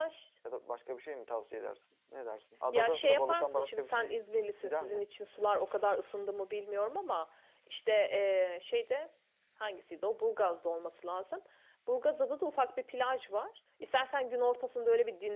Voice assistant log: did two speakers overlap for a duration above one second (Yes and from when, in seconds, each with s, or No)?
Yes, from 2.7 s